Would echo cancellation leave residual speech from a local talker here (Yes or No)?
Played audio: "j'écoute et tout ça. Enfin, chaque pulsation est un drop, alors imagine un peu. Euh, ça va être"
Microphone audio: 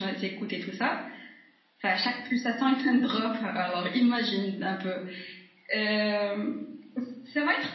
No